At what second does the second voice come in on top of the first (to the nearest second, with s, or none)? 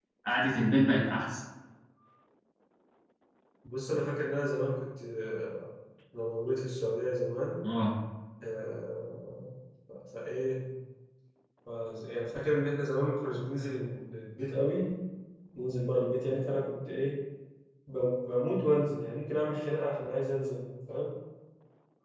none